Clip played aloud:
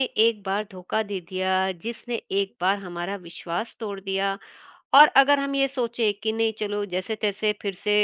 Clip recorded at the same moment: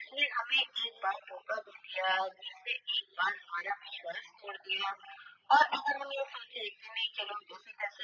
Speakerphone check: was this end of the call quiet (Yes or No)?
Yes